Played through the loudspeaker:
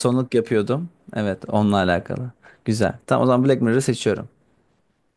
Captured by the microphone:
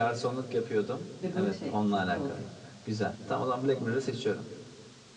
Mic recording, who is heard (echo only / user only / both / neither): both